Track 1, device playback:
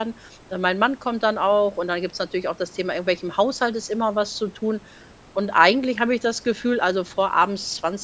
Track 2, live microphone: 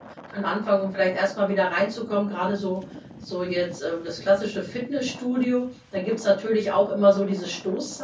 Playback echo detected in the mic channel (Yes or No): No